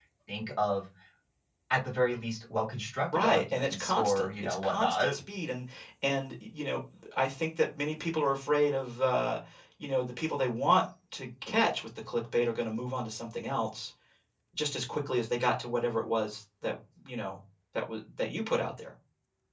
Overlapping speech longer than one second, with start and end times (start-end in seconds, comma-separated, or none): 3.1-5.1